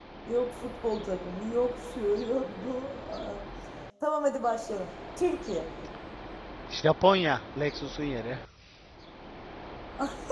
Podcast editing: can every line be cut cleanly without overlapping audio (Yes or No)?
Yes